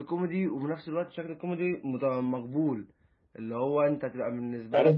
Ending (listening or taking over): taking over